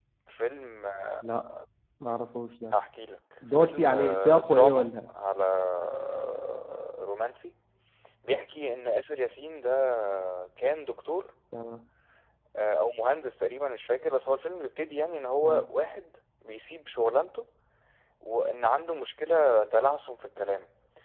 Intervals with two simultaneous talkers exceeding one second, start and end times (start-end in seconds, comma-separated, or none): 3.5-5.1